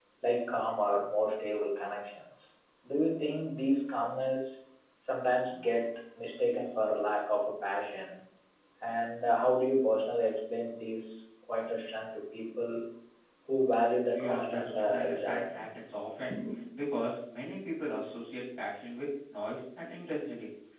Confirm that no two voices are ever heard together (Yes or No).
No